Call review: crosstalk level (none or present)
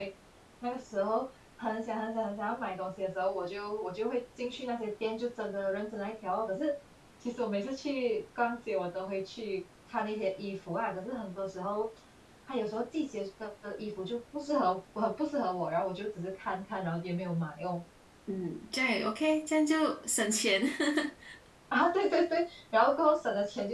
none